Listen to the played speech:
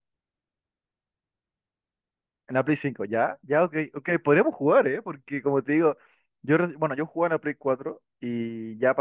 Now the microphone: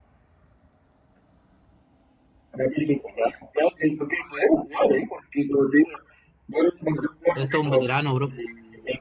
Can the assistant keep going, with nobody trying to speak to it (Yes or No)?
No